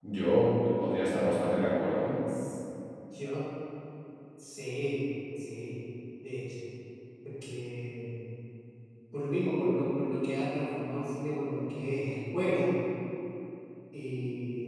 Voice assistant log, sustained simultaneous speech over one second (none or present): none